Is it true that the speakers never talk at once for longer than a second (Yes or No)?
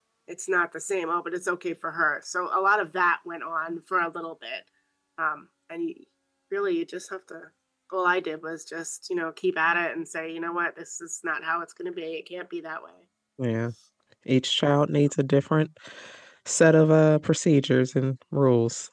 Yes